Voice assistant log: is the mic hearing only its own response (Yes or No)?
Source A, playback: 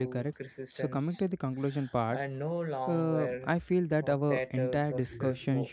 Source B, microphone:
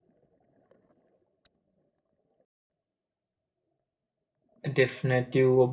No